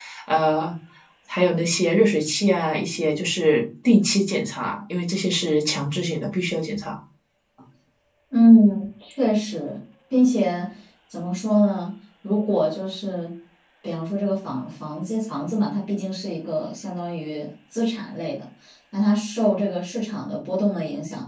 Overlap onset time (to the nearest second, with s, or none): none